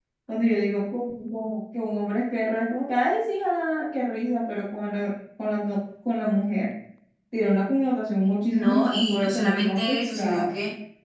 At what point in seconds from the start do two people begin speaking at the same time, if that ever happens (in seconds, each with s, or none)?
8.5 s